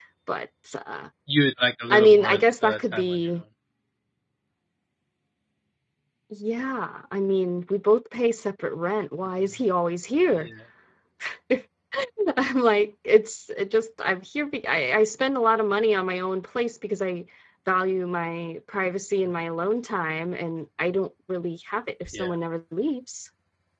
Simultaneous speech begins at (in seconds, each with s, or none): 1.9 s